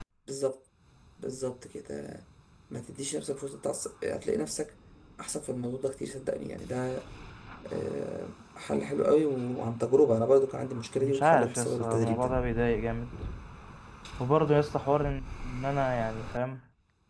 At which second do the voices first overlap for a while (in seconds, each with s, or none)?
11.0 s